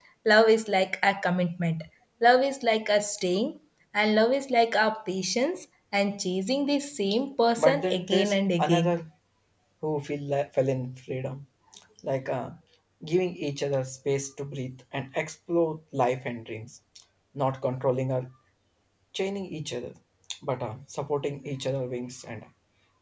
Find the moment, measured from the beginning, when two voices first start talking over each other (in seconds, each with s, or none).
7.6 s